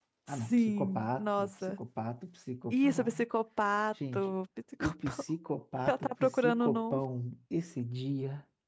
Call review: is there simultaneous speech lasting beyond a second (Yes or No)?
Yes